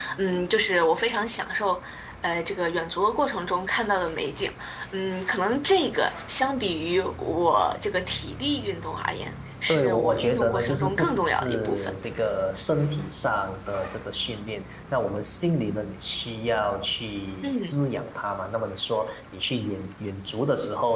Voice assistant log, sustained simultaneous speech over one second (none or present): present